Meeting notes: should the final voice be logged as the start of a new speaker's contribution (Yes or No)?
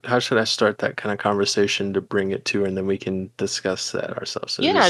Yes